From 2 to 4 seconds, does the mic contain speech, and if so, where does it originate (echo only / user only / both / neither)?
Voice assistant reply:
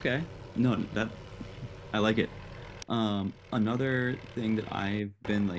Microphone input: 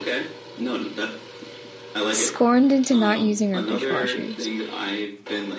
both